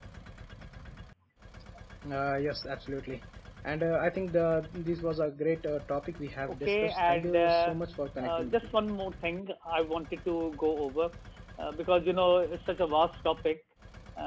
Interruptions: present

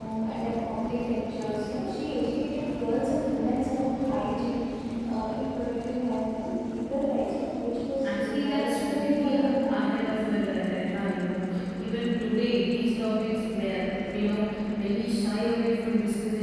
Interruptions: present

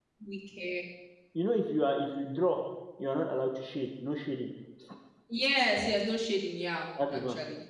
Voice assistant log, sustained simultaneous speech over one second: none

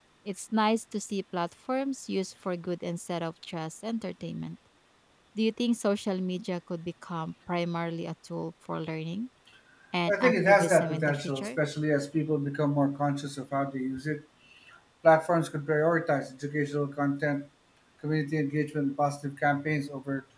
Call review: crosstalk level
present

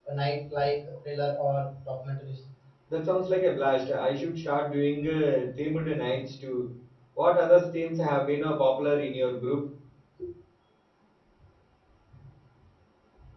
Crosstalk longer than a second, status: none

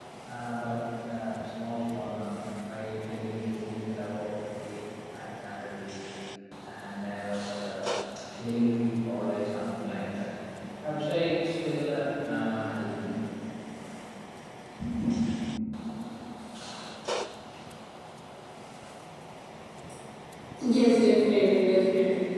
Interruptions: none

